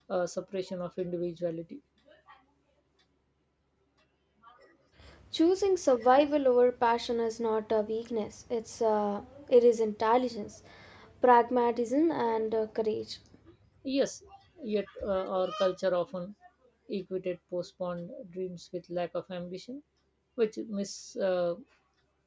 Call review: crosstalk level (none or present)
none